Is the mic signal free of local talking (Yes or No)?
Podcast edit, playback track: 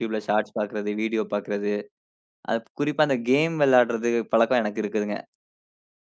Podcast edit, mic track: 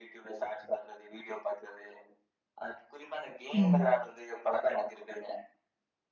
No